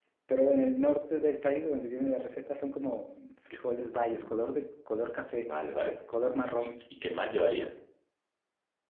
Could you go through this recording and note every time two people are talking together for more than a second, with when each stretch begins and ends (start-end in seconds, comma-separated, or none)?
none